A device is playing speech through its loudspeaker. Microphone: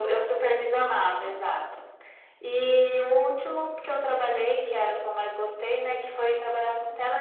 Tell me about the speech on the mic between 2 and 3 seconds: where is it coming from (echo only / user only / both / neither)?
echo only